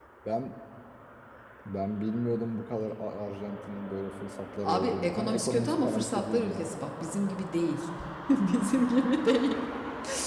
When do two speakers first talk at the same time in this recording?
4.6 s

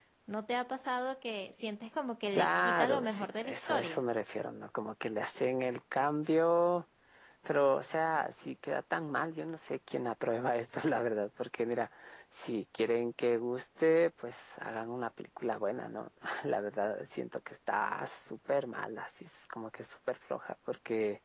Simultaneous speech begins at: 2.4 s

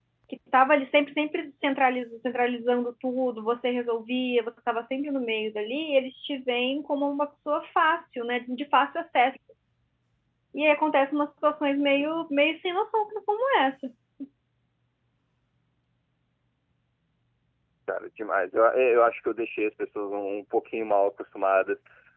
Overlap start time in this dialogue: none

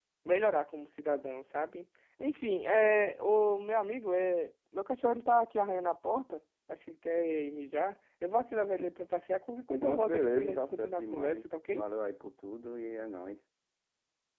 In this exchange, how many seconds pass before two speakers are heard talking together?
9.8 s

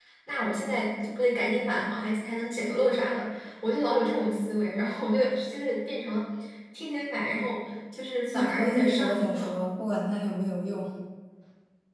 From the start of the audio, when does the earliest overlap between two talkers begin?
8.3 s

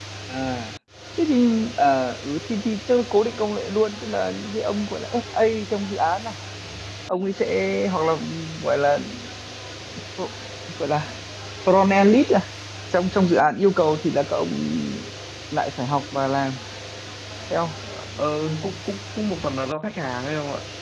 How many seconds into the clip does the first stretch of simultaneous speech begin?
none

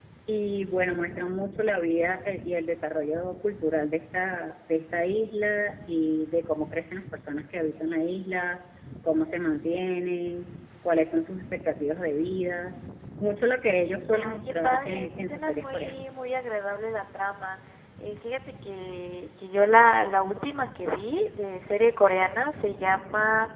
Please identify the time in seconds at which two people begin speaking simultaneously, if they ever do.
14.1 s

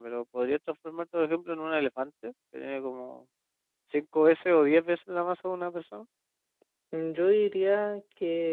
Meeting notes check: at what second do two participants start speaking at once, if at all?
none

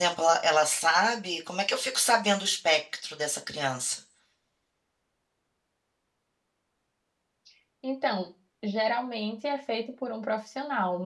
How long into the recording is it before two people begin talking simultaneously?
none

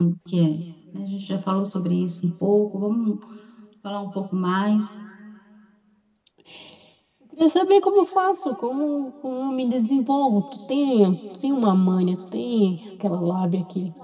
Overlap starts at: none

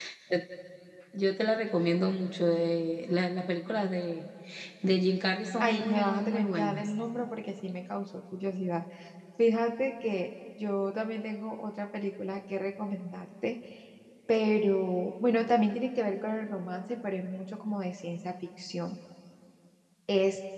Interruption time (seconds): 5.6 s

